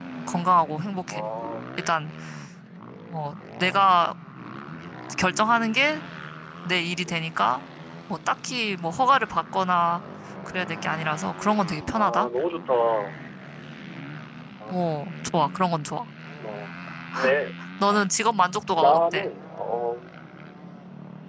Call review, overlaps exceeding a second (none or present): none